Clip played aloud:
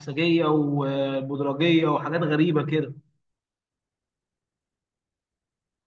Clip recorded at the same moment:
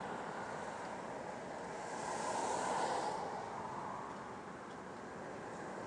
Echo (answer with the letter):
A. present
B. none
B